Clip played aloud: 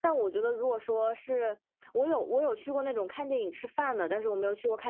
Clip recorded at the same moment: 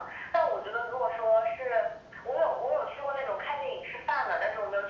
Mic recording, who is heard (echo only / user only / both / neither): echo only